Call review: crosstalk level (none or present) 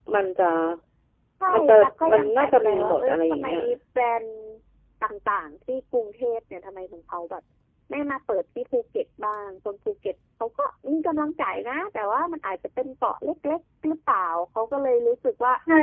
present